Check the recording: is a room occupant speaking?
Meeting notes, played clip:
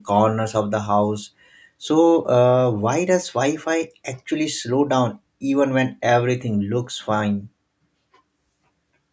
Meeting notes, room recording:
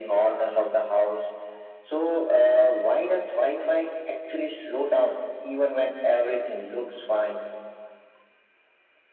No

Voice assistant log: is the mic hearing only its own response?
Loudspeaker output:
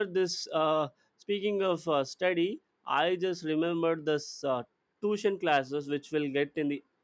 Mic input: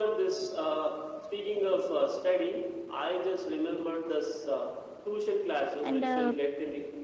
No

